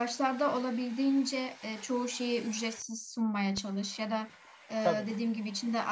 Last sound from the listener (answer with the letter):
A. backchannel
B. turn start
A